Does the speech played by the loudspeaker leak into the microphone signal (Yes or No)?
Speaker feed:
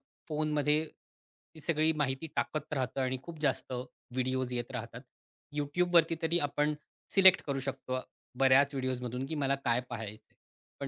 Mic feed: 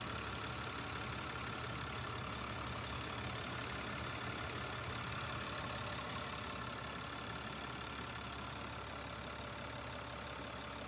No